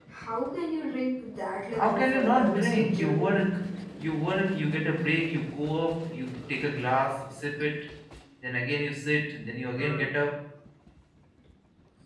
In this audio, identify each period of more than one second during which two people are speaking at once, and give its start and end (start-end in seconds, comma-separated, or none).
1.7-3.4